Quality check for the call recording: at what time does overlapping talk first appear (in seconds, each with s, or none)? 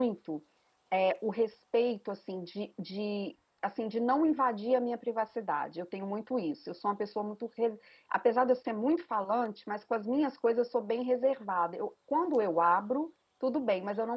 none